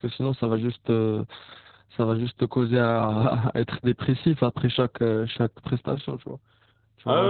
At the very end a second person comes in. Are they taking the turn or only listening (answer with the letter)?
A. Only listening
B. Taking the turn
B